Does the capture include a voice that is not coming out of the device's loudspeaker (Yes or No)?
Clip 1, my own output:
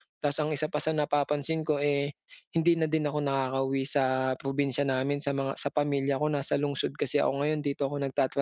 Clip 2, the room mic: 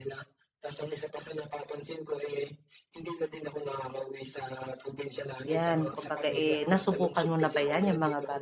Yes